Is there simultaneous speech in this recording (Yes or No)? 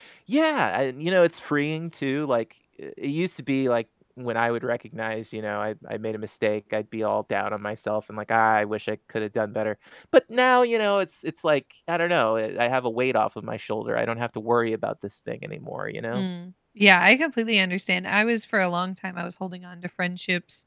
No